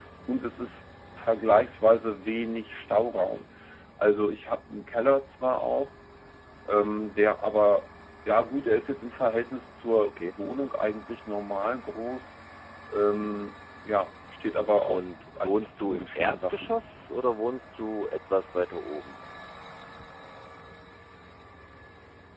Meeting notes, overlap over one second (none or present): present